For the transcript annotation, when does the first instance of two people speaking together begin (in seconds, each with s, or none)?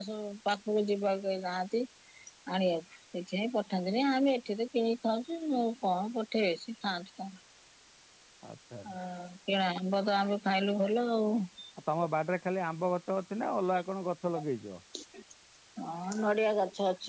none